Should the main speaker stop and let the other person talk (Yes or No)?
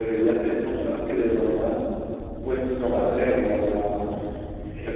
No